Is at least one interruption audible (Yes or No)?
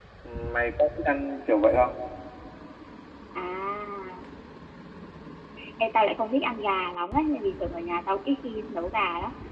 No